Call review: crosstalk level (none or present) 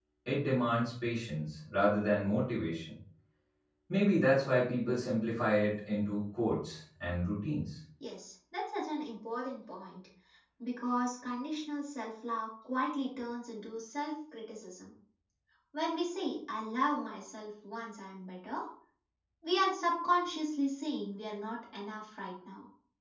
none